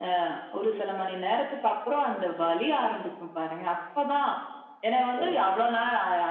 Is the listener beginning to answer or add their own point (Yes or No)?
No